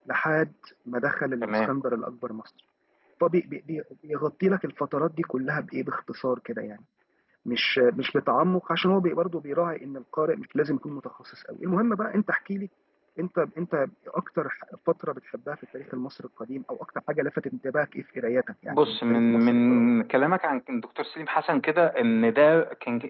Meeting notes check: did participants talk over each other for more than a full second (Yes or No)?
Yes